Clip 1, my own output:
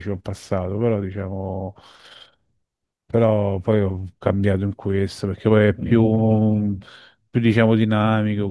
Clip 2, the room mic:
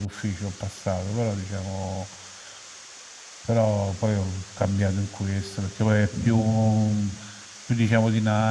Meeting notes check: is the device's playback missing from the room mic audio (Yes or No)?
No